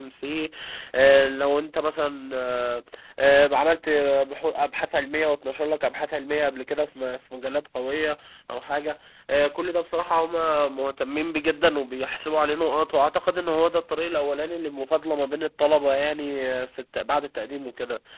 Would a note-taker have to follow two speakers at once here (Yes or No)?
No